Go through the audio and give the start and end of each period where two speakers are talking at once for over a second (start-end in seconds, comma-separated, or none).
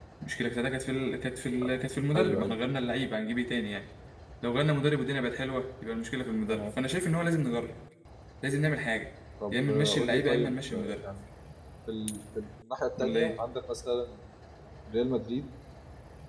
9.5-11.0